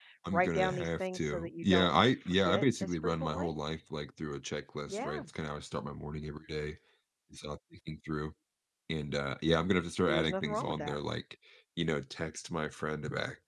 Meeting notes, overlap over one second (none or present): present